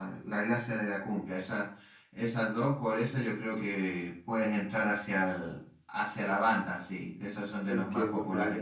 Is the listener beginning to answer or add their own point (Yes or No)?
Yes